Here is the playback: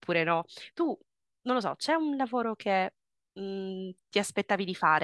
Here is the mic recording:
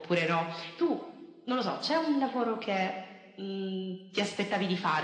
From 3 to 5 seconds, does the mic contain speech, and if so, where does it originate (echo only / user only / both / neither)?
echo only